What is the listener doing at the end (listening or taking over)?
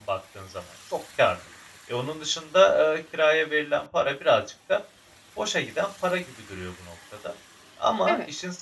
listening